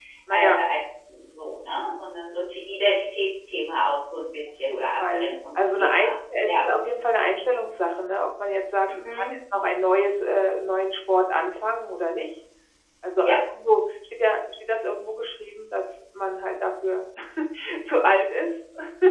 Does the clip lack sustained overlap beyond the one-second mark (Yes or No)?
No